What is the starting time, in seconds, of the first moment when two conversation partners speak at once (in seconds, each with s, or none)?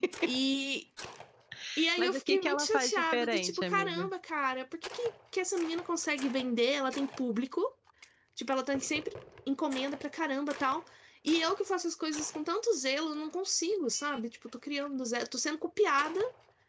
2.0 s